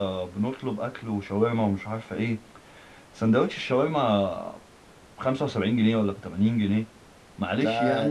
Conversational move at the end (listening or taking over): listening